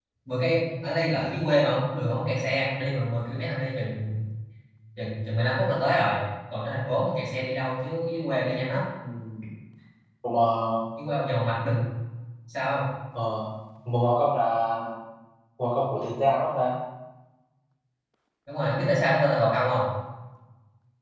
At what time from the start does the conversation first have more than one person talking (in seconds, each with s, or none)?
none